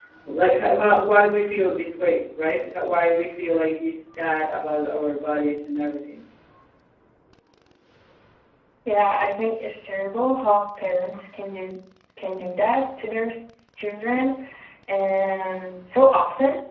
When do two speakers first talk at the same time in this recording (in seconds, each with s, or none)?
none